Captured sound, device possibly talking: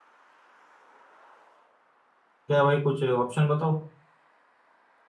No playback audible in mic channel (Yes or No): Yes